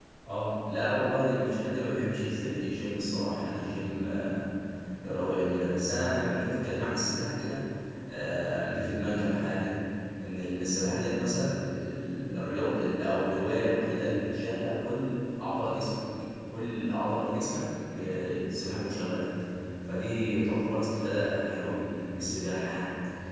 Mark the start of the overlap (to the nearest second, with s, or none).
none